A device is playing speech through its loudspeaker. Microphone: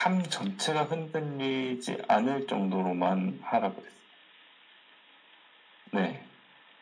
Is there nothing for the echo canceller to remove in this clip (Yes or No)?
No